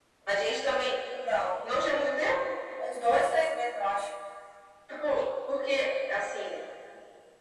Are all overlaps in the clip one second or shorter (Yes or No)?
Yes